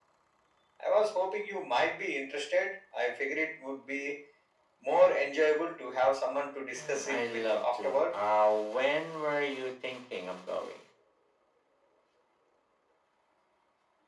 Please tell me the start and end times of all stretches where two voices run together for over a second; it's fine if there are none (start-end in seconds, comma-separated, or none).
6.8-8.1